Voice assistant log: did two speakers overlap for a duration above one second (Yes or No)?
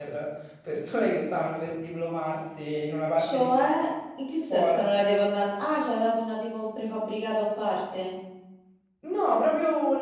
No